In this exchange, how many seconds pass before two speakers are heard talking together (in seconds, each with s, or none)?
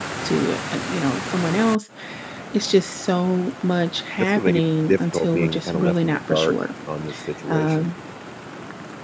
4.2 s